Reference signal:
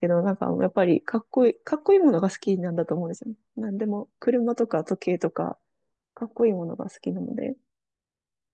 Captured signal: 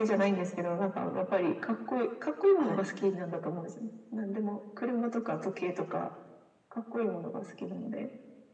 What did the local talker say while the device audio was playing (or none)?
はい。